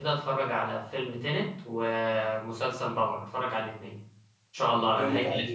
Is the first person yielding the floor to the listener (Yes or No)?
Yes